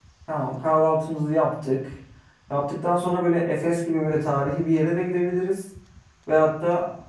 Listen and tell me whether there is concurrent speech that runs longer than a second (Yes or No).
No